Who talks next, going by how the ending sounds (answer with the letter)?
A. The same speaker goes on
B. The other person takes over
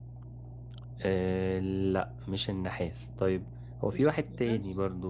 A